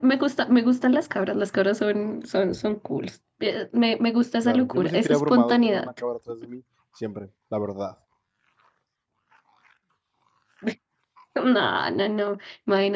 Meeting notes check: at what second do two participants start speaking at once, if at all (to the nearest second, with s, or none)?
4 s